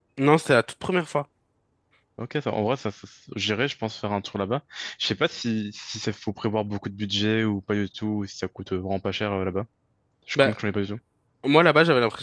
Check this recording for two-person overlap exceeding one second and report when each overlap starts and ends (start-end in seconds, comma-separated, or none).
none